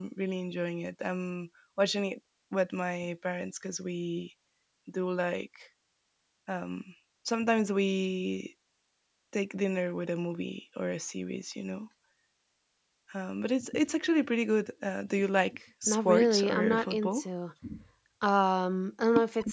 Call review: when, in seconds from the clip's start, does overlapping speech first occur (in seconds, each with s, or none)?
15.9 s